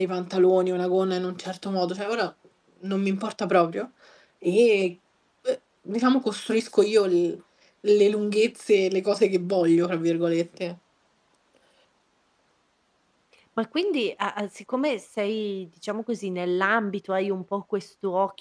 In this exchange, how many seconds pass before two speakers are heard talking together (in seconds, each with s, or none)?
none